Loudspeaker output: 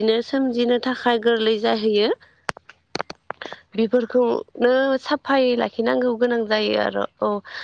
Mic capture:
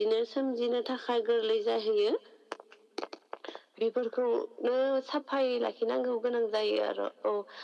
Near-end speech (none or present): none